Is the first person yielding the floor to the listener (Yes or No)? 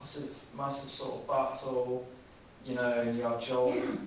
No